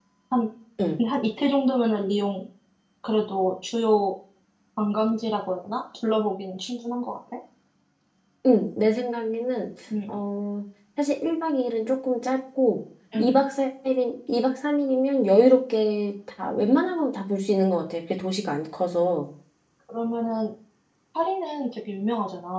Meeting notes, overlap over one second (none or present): none